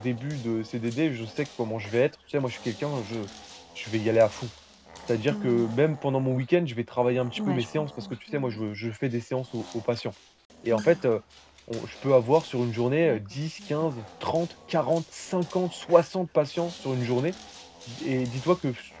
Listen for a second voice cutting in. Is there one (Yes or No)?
Yes